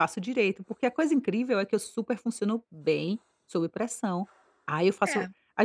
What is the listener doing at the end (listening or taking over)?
listening